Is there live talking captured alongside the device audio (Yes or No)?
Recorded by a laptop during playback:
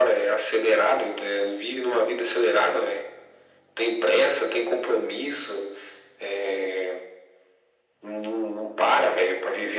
No